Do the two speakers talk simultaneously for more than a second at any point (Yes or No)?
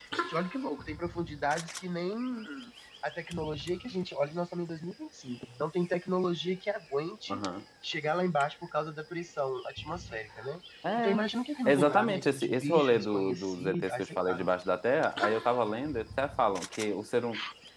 Yes